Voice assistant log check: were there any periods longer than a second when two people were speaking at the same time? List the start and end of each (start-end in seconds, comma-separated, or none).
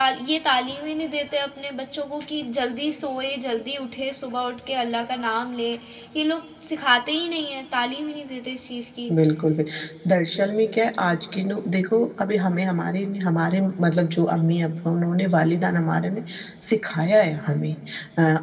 none